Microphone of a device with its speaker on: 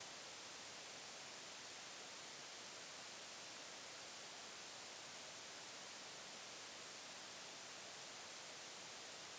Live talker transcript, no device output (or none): none